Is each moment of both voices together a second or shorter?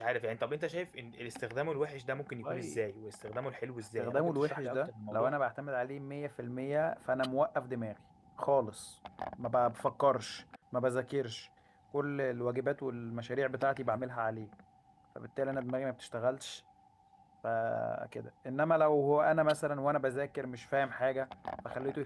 No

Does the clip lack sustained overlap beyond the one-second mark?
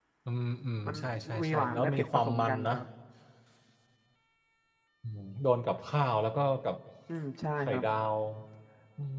No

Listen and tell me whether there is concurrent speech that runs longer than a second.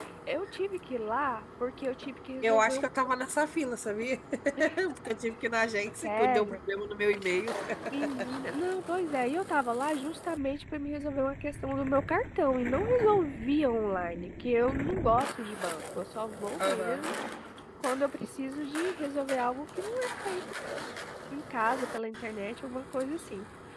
No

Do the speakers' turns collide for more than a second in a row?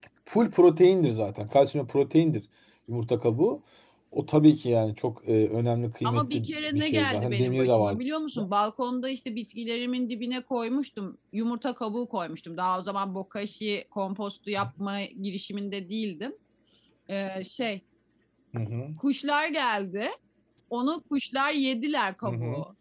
Yes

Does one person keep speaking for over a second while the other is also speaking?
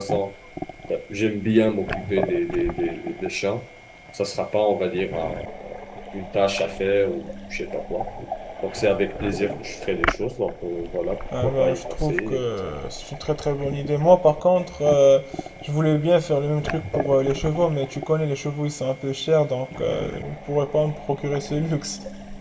Yes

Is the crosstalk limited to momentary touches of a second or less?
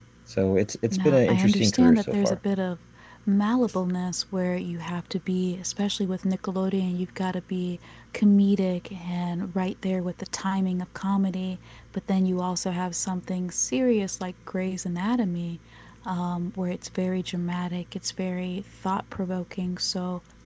No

